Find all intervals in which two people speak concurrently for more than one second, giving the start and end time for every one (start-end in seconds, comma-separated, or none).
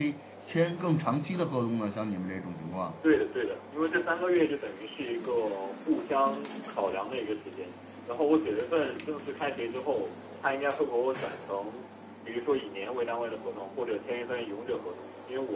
none